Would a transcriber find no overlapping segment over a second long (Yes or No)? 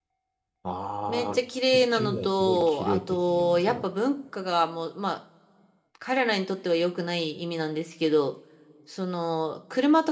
No